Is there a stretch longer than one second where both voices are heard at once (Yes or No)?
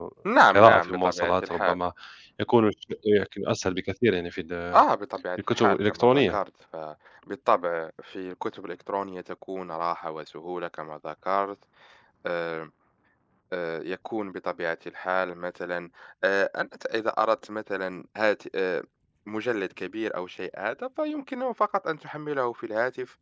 Yes